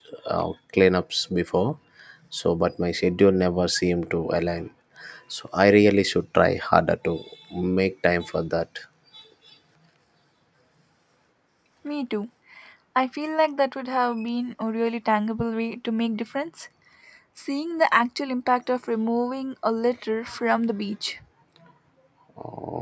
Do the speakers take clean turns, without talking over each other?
Yes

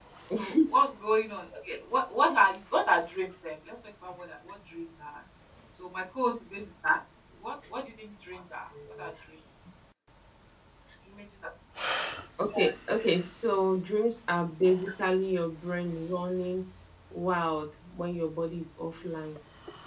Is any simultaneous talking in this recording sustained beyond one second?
No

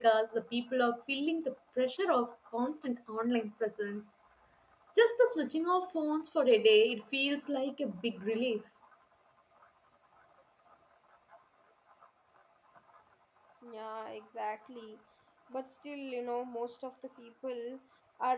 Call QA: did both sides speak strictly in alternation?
Yes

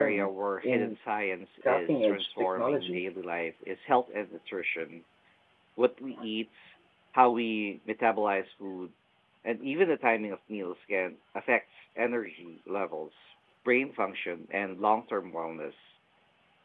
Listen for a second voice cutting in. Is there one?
Yes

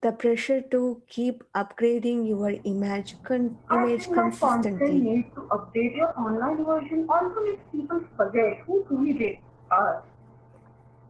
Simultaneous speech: Yes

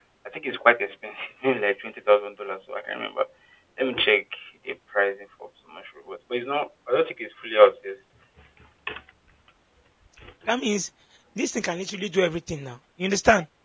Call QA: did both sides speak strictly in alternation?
Yes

